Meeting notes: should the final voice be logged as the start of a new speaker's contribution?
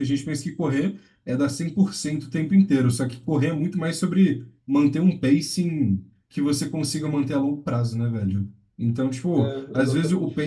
No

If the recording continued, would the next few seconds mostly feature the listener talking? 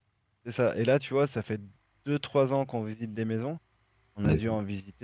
No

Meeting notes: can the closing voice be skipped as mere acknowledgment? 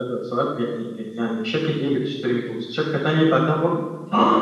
No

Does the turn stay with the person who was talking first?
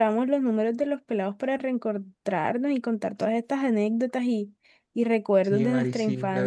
No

